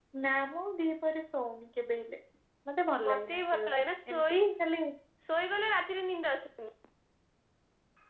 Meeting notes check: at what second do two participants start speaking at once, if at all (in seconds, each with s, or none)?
3.1 s